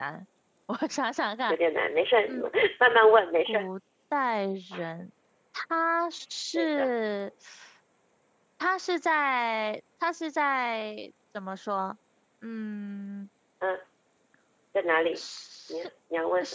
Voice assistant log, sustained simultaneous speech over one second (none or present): none